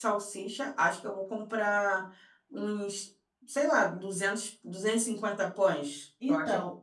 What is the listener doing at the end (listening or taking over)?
taking over